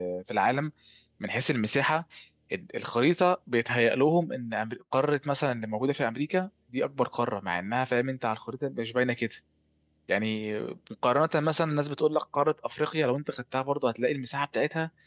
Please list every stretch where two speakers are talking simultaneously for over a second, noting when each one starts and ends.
none

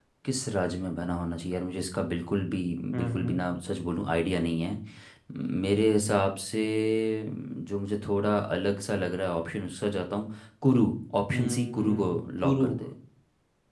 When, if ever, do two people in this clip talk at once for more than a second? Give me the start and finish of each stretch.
11.3-12.7

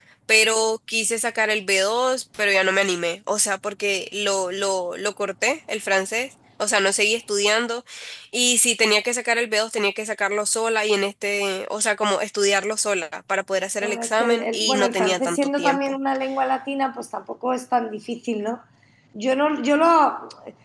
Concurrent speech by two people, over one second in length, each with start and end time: 13.8-15.9

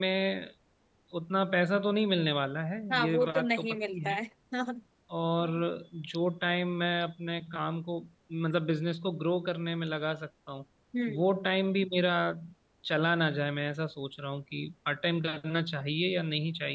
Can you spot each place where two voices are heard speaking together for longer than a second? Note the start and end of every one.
2.9-4.2

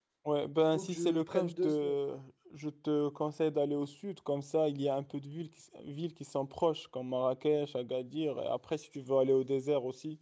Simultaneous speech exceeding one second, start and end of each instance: 0.7-2.0

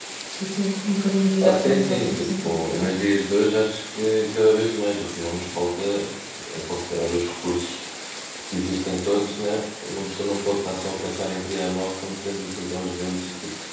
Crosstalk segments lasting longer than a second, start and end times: 1.4-2.9

